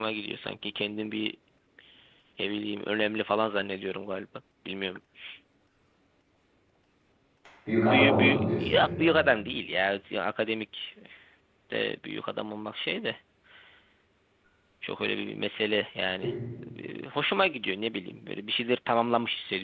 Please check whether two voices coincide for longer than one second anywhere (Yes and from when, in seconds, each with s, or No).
Yes, from 7.8 s